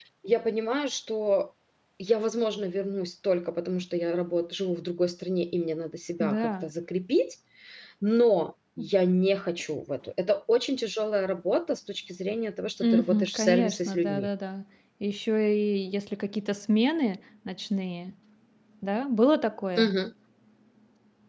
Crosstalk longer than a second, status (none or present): present